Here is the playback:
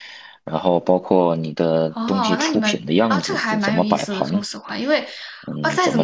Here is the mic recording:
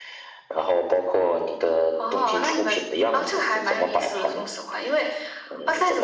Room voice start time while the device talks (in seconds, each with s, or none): none